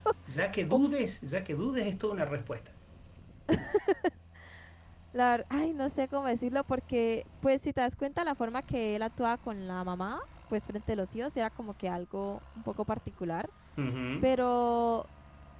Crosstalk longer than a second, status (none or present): none